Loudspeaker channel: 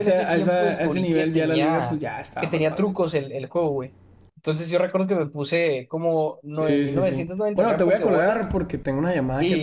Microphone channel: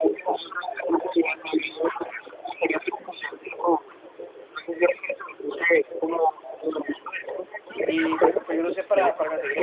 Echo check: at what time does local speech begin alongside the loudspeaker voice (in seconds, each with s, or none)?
7.8 s